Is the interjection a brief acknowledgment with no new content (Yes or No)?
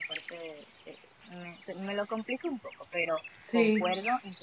Yes